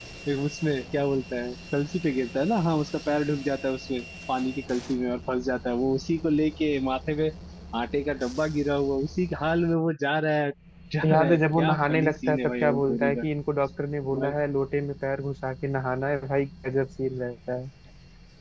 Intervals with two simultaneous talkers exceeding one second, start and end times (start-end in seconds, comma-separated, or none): 11.0-13.2